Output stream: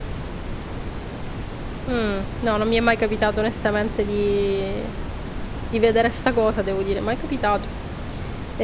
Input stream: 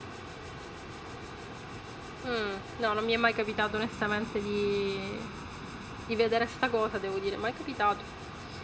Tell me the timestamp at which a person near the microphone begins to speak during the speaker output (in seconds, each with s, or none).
none